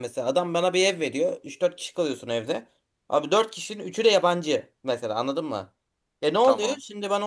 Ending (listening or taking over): listening